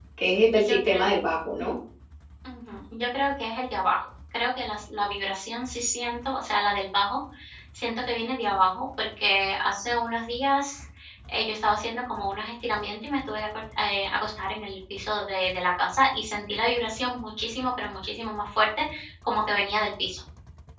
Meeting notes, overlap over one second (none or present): none